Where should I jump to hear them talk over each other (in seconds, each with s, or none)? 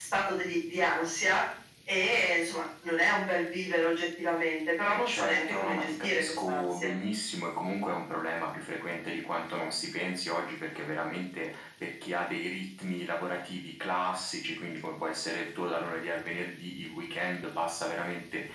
4.9 s